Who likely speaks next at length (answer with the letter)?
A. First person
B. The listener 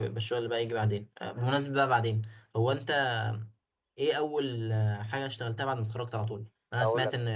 A